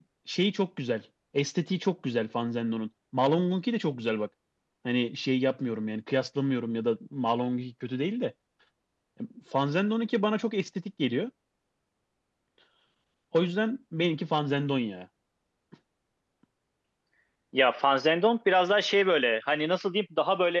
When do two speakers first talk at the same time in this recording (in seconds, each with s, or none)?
none